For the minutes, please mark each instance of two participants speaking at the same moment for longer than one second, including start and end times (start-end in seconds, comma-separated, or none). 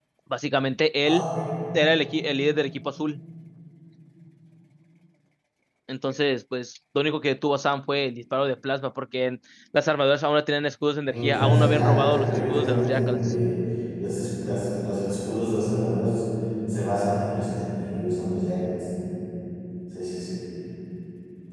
11.1-13.2